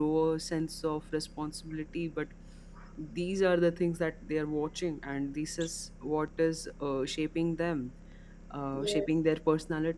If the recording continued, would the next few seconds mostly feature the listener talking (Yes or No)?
No